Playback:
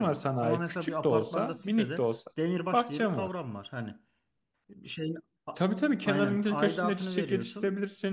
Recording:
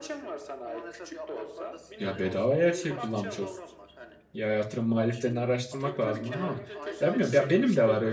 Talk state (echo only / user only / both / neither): both